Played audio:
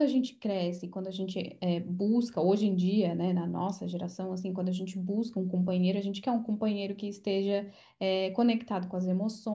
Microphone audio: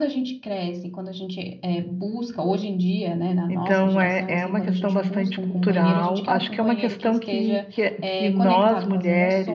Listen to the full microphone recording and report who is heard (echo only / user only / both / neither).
both